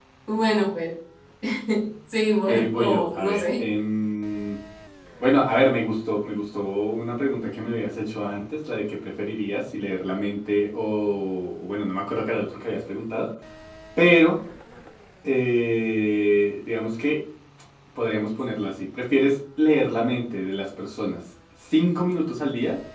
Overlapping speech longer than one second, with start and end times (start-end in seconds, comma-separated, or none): 2.5-3.7